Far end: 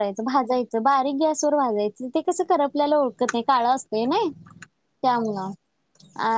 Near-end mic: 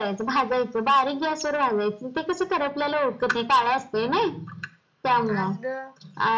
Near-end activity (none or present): present